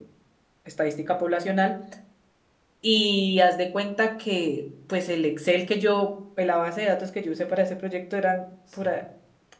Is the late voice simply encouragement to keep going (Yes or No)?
Yes